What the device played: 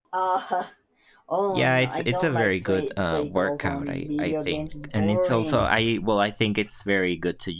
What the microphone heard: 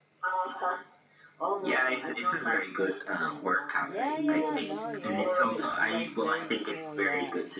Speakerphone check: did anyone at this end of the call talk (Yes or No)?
Yes